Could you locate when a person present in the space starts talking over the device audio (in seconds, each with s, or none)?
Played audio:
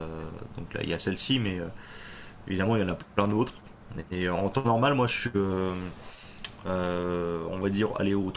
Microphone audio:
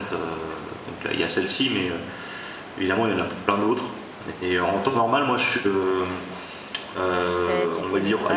7.2 s